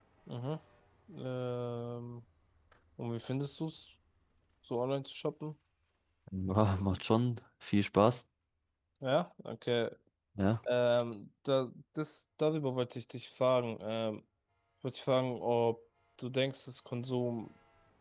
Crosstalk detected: No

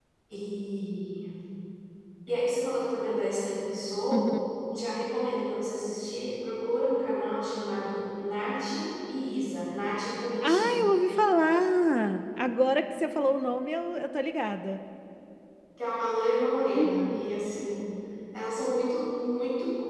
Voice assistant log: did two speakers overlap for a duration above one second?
No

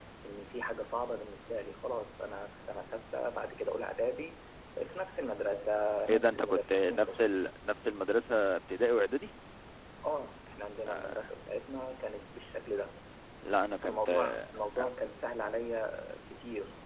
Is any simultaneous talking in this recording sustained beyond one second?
Yes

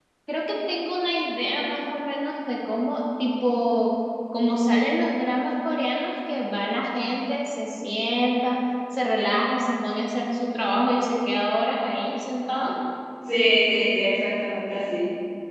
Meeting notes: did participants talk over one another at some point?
No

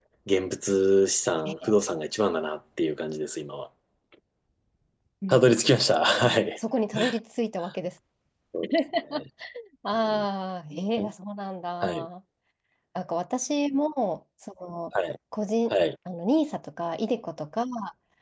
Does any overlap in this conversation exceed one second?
No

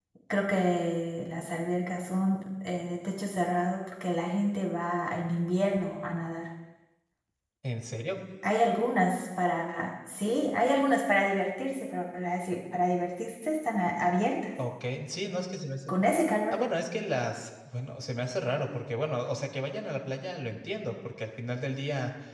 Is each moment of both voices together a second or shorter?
Yes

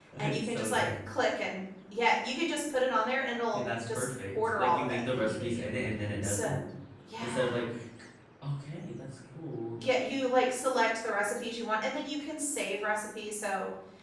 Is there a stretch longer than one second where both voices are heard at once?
Yes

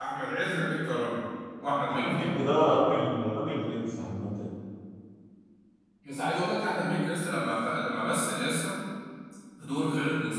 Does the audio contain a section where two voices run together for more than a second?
No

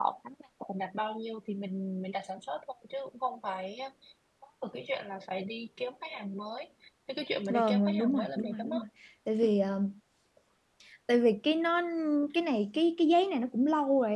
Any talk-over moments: Yes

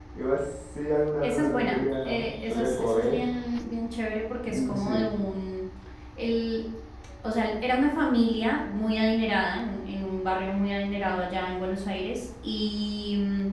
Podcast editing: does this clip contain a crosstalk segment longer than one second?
Yes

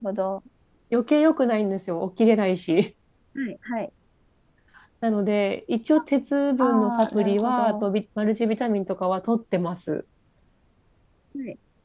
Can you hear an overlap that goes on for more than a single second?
Yes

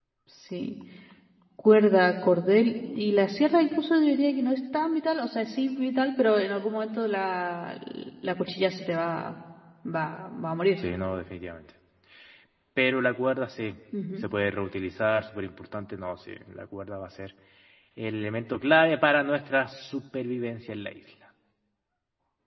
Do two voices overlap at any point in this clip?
No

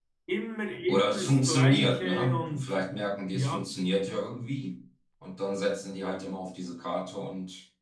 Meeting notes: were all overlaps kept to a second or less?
No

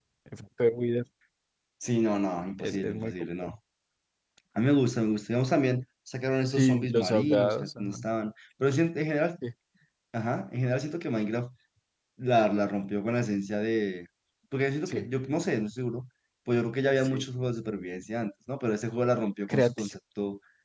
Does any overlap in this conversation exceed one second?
Yes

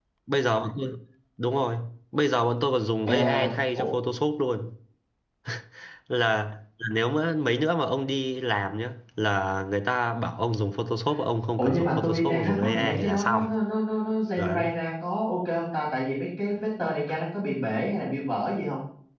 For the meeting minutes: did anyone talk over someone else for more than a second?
Yes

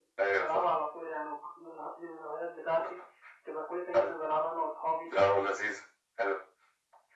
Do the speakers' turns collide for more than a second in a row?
No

